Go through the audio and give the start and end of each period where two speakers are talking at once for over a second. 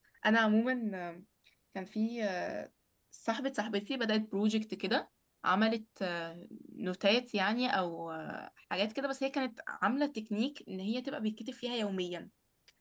none

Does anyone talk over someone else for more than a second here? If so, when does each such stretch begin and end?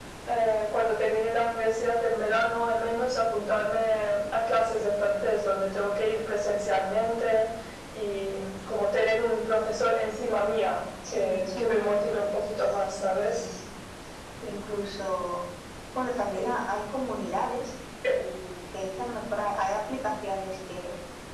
11.1-12.3

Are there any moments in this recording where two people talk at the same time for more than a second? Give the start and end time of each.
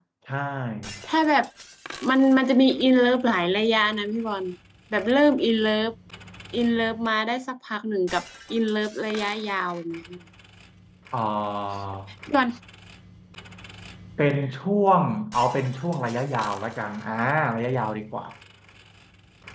none

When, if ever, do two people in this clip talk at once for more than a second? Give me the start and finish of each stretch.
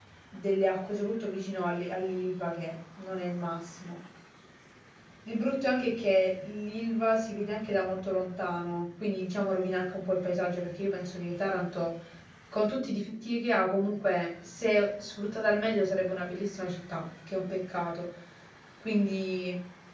none

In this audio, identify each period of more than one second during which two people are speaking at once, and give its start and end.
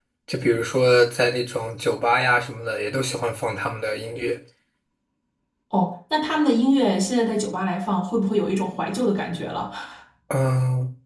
none

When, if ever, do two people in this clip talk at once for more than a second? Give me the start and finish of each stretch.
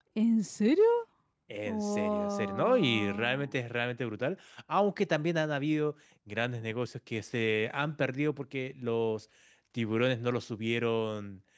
1.6-3.5

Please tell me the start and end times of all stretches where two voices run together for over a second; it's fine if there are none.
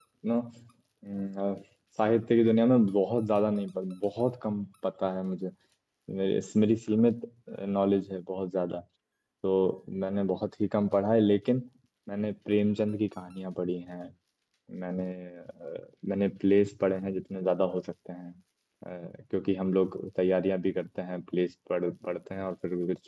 none

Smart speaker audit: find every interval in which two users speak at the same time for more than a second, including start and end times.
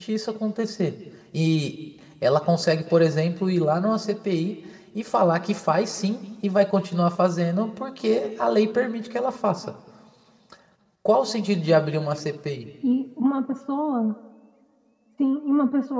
none

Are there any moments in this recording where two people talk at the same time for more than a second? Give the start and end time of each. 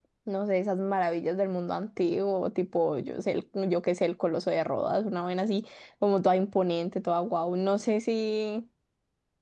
none

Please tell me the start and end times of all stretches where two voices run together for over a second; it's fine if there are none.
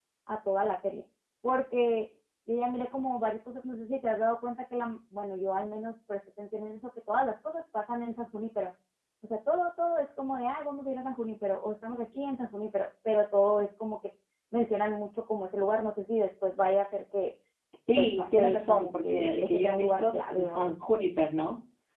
18.0-20.7

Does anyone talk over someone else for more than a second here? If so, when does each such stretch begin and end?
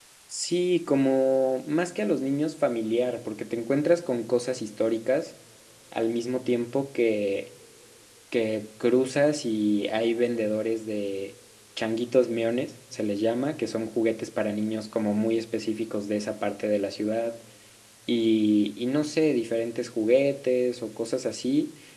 none

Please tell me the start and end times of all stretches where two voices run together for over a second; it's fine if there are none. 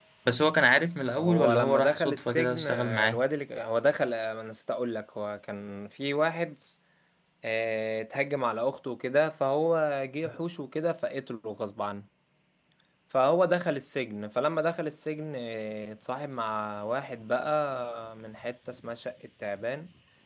1.2-3.2

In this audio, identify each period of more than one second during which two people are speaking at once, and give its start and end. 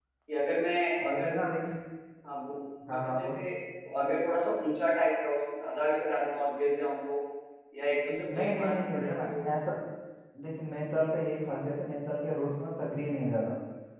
8.1-9.4

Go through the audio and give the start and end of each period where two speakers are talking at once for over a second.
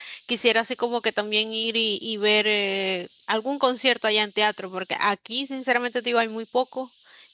none

